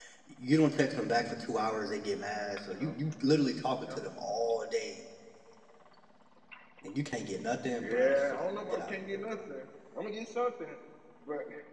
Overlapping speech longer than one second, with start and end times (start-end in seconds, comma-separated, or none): 7.8-9.4